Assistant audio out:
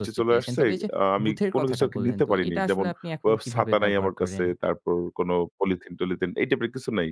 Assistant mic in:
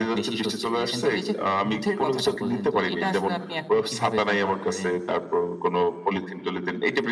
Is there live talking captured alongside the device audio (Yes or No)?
No